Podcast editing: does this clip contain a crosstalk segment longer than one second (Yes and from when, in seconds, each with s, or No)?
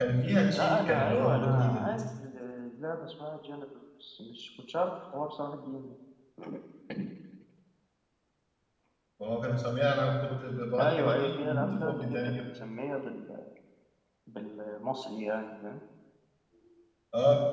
Yes, from 0.5 s